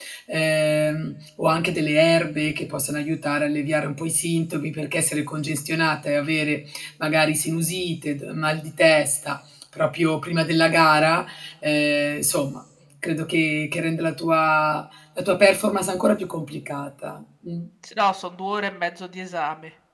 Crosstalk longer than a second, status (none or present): none